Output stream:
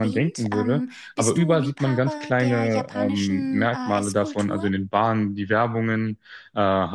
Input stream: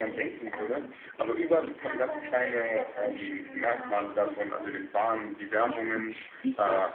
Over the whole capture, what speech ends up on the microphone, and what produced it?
both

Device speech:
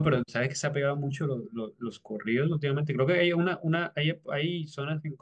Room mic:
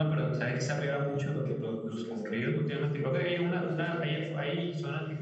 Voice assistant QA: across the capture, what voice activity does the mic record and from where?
both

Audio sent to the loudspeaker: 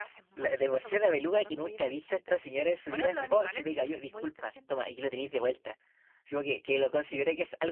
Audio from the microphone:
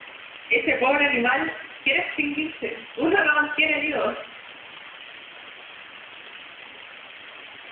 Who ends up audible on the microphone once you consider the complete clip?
user only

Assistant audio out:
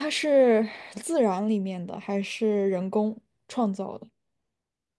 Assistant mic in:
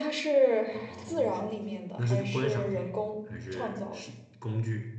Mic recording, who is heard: both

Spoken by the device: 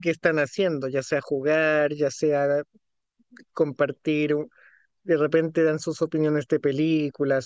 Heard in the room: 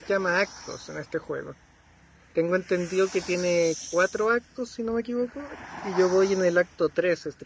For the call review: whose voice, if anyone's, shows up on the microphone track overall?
user only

